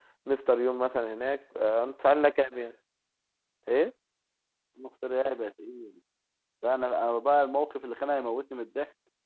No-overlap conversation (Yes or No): Yes